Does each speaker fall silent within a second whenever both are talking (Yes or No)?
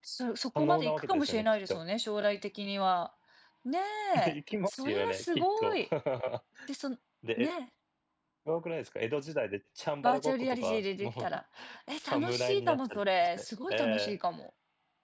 No